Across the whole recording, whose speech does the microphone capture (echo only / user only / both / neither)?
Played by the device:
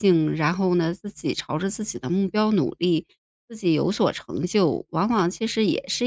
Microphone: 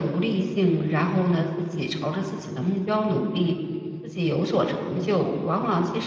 echo only